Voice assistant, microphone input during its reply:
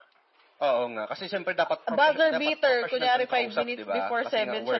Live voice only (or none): none